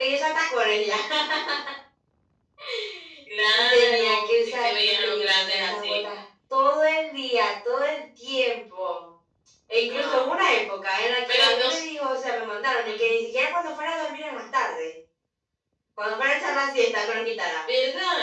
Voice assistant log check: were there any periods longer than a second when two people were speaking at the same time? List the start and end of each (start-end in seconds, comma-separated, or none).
3.5-6.0